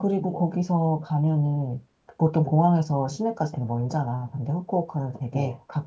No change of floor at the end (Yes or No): Yes